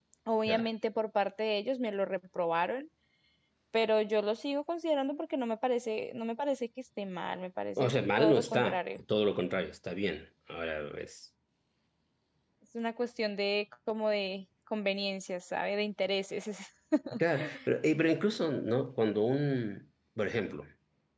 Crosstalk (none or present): present